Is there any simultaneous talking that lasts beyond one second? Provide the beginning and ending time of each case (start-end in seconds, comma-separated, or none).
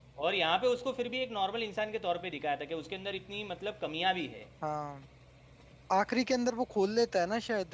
none